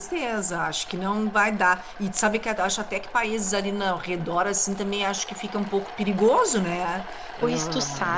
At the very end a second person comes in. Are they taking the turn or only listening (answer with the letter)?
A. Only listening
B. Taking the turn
B